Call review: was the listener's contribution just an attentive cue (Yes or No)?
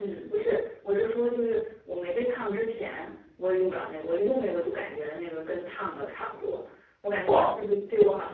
Yes